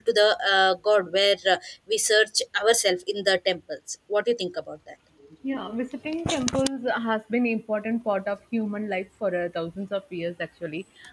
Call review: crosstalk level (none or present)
none